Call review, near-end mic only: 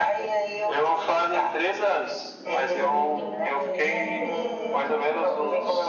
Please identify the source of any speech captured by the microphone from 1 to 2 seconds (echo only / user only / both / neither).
echo only